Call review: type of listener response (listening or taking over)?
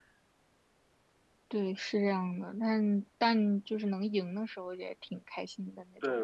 taking over